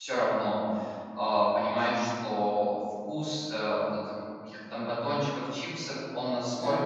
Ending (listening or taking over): listening